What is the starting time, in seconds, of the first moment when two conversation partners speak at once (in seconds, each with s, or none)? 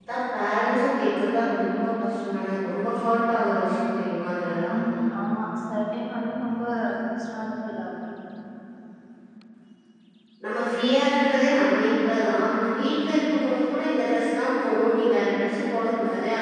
none